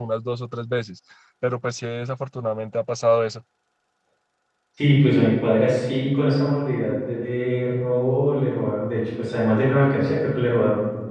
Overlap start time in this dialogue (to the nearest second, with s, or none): none